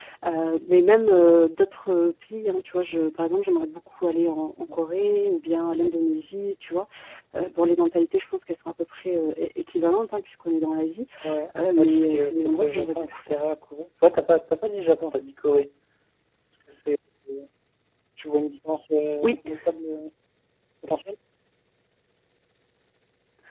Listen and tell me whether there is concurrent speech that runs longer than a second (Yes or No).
Yes